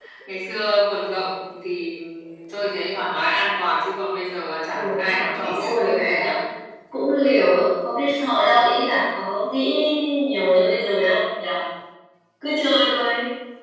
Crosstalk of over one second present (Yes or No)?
Yes